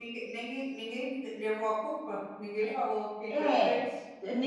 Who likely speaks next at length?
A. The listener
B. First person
A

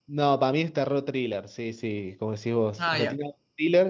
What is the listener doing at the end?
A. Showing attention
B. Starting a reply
A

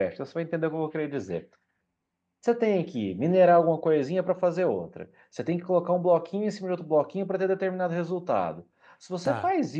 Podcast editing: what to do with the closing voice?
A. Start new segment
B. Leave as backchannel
B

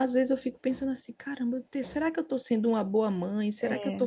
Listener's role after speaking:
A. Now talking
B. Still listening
B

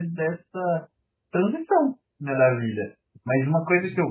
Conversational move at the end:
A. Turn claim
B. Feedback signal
B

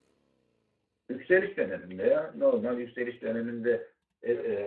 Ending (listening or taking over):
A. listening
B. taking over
A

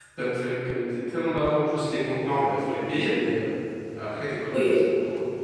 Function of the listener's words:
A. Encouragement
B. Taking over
B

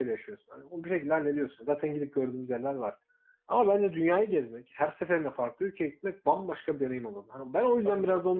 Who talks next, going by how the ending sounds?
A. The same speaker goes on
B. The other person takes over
B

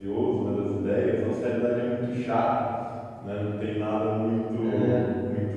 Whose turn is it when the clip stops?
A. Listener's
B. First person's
B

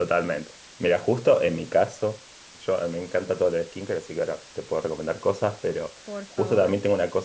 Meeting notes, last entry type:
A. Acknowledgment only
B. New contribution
A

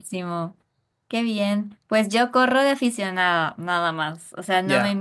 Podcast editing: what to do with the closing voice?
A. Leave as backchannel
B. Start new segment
A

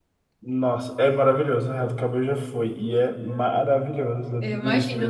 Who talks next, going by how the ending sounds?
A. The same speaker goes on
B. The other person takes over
A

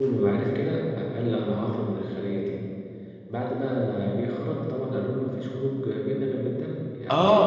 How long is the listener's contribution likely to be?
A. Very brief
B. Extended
B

